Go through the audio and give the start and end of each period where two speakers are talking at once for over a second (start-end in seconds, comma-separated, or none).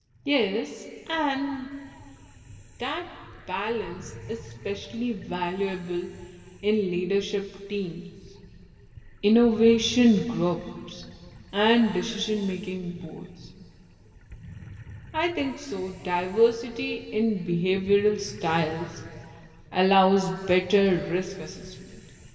none